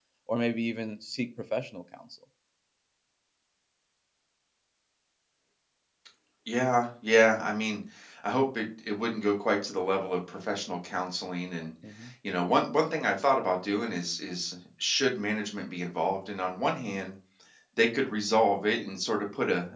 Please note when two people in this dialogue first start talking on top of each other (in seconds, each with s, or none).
none